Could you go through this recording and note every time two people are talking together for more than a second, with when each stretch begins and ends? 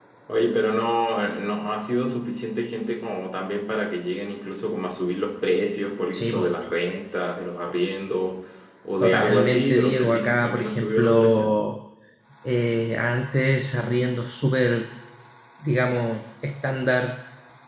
9.0-11.5

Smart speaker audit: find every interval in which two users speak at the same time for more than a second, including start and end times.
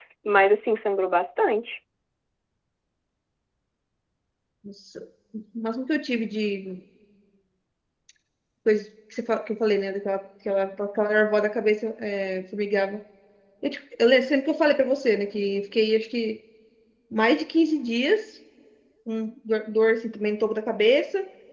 none

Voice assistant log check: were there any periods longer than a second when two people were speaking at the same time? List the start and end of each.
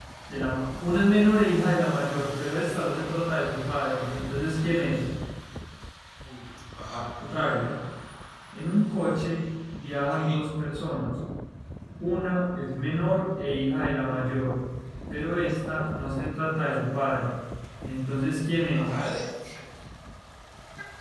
none

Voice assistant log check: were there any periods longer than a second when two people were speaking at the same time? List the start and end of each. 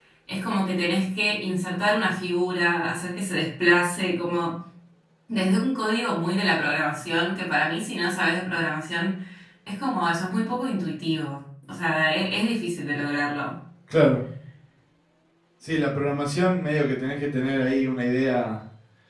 none

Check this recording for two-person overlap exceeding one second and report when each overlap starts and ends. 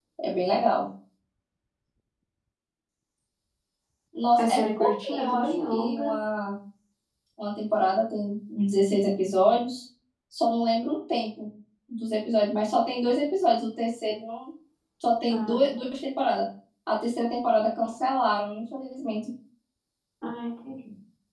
4.4-6.1

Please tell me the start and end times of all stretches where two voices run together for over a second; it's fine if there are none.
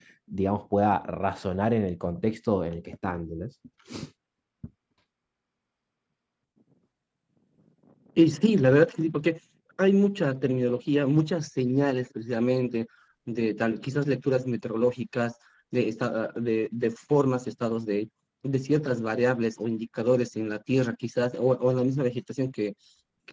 none

